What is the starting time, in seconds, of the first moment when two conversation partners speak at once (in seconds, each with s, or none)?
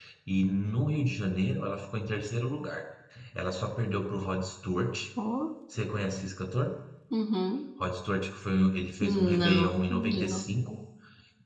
9.0 s